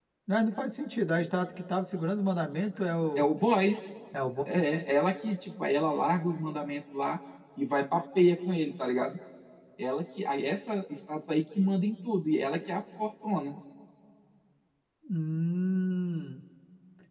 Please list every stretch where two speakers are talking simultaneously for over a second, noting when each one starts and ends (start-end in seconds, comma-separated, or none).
none